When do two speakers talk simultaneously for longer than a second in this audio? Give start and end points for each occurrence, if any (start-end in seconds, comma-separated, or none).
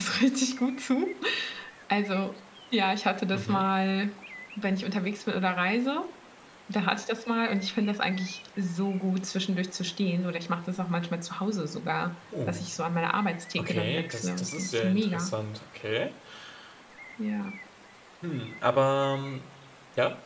13.6-15.3